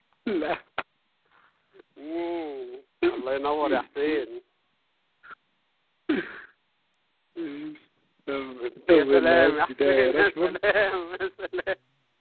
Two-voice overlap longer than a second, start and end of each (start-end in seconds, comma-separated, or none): 8.9-10.6